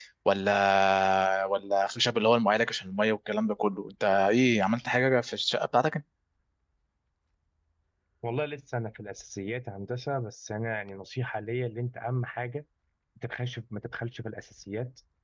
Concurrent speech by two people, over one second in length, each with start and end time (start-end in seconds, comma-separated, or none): none